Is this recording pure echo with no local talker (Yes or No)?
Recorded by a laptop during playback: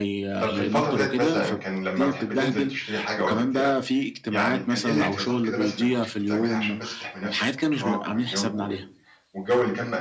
No